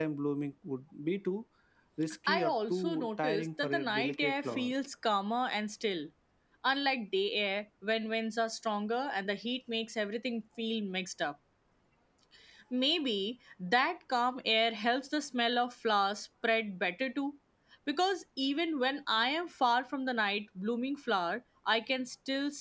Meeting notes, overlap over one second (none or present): present